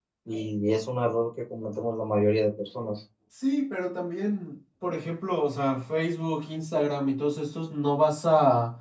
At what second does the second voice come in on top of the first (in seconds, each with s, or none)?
none